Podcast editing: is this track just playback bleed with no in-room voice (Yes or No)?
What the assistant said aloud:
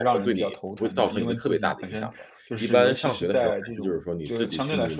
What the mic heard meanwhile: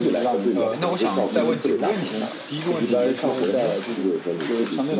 No